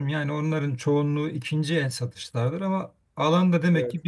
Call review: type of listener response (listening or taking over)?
listening